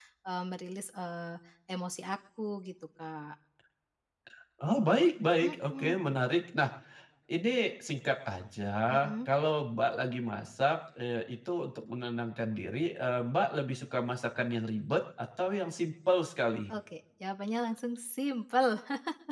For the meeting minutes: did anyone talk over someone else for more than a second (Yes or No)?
No